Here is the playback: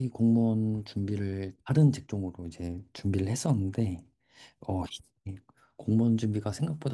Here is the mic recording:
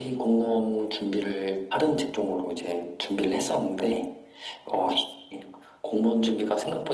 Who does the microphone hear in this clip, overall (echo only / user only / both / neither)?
echo only